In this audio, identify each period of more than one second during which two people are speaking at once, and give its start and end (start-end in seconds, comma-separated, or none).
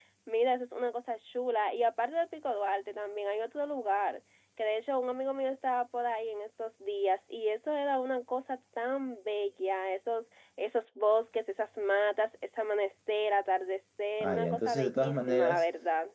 14.2-15.6